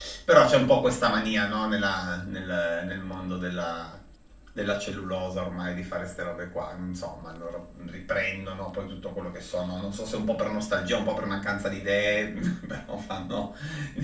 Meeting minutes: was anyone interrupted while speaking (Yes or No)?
No